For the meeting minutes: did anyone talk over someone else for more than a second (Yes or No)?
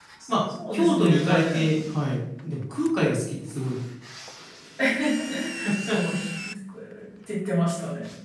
Yes